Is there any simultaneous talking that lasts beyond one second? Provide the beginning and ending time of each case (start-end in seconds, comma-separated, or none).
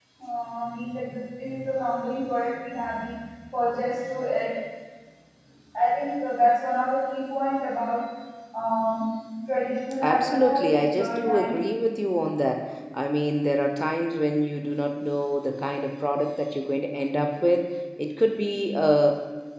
10.0-11.6